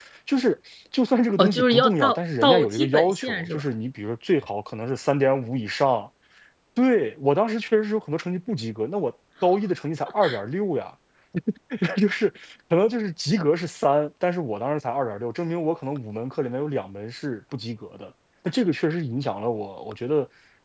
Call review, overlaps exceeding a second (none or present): present